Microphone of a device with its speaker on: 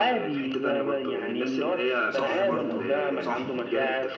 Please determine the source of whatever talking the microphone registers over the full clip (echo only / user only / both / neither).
both